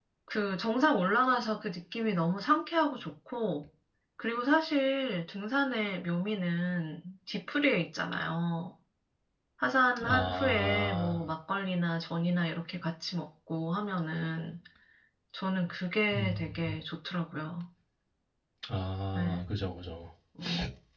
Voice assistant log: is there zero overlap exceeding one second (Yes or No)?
No